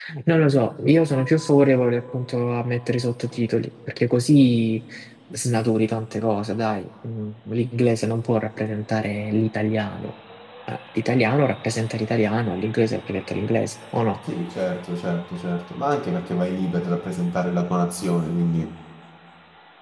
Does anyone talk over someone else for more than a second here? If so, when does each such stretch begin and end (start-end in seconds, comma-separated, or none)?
none